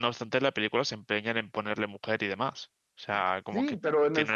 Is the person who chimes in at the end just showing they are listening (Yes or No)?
No